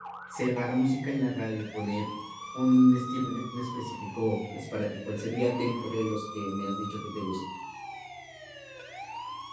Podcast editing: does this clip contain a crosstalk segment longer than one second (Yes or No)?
No